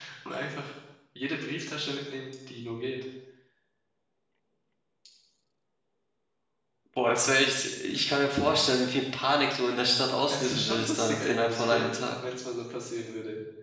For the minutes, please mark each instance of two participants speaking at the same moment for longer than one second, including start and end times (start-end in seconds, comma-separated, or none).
10.3-11.9